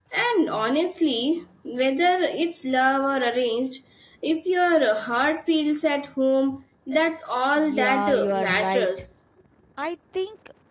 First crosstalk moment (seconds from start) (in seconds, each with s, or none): 7.5 s